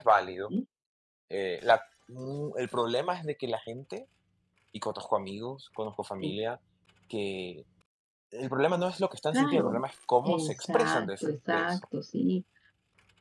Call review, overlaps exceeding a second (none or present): present